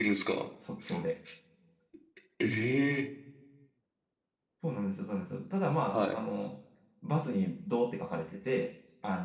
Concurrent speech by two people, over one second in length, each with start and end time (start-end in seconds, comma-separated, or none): none